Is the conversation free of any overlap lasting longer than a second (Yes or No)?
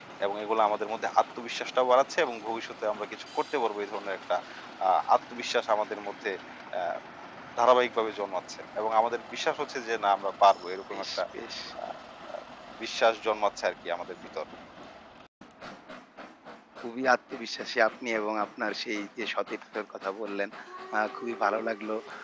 Yes